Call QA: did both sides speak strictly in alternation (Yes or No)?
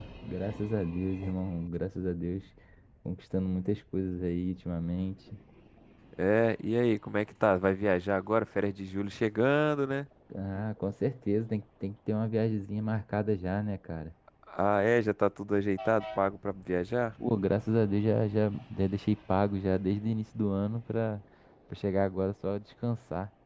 Yes